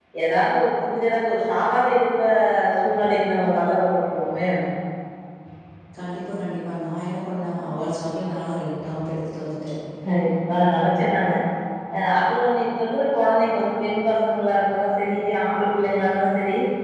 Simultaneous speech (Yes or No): No